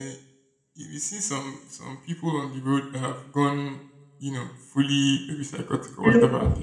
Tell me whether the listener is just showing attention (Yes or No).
Yes